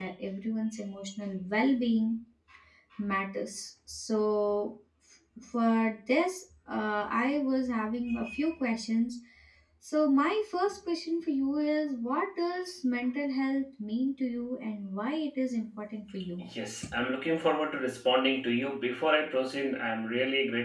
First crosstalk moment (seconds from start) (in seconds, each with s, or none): none